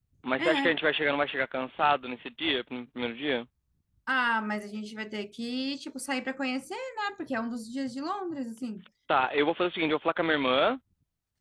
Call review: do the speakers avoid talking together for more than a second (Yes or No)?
Yes